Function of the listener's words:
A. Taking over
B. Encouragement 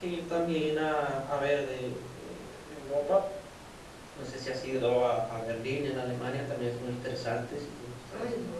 A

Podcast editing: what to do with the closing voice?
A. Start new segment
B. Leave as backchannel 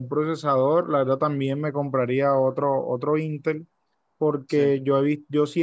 B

